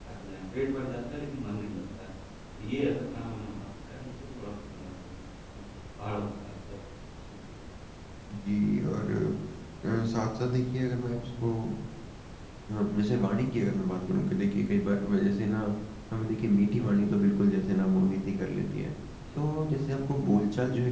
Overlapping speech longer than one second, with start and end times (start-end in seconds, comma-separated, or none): none